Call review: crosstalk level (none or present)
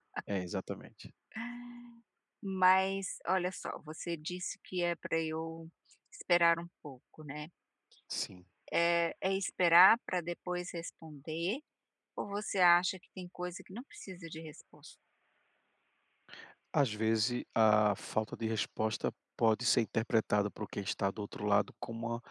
none